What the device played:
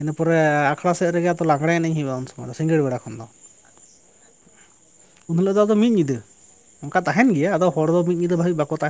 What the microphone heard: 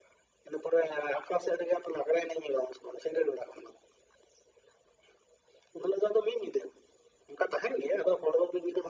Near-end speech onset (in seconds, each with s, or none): none